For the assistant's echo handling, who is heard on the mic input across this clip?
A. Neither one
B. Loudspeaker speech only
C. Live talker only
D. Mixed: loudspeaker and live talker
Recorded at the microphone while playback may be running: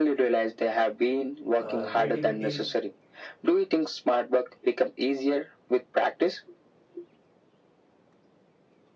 D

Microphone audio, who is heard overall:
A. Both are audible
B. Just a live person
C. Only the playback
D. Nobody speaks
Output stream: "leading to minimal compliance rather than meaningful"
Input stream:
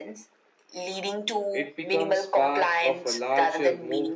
A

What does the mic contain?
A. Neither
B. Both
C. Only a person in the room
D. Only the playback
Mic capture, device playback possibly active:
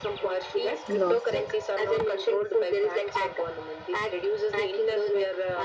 B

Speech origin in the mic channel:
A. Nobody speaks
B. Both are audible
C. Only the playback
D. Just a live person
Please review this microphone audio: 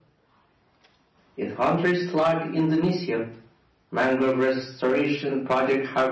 C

